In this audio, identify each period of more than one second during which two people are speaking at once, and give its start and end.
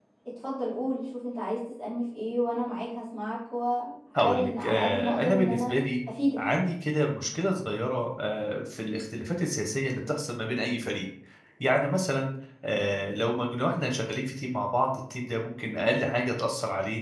4.2-5.7

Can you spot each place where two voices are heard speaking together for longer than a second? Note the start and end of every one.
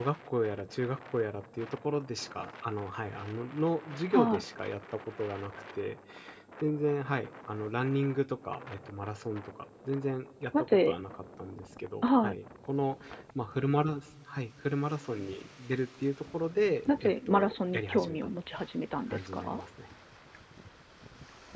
17.0-18.3

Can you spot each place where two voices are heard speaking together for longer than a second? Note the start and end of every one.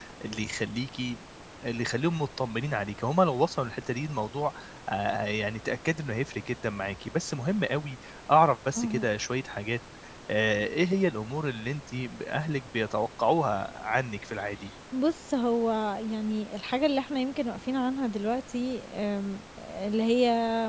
none

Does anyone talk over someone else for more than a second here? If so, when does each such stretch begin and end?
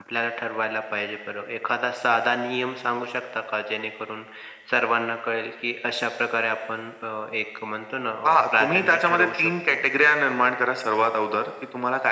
8.2-9.8

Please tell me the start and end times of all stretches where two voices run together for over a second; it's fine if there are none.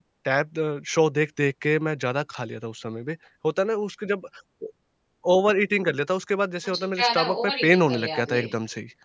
6.7-8.4

